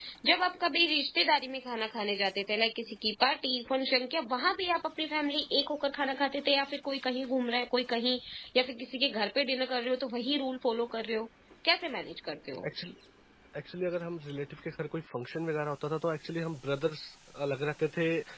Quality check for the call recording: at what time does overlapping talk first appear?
none

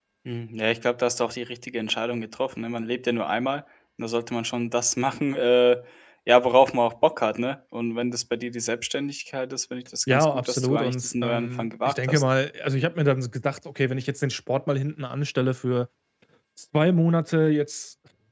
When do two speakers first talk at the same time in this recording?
10.1 s

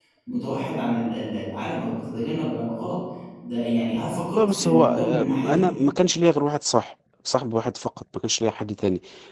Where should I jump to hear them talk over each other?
4.3 s

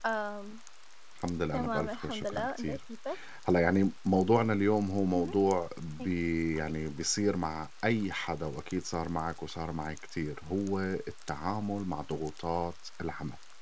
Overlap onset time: 1.5 s

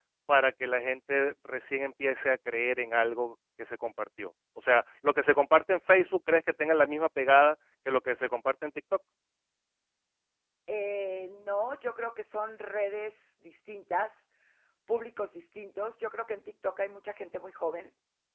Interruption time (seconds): none

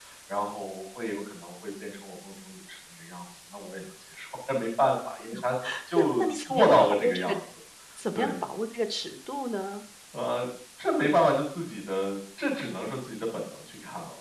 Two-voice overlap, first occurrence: 5.9 s

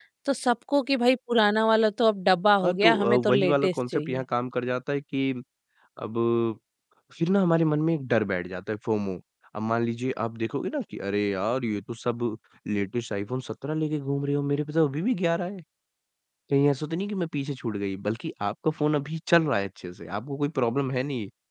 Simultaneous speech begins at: 2.6 s

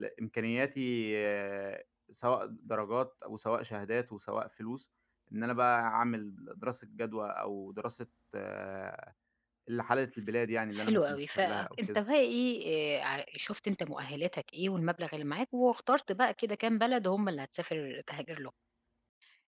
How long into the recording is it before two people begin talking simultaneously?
10.7 s

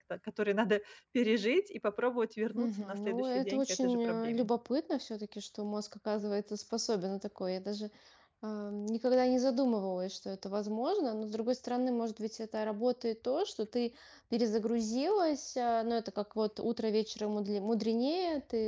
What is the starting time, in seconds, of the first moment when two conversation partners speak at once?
2.6 s

